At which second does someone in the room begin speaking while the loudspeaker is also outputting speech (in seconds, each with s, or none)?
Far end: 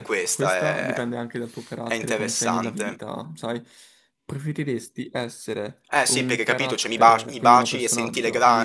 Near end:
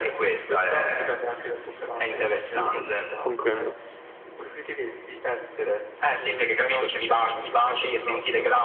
2.6 s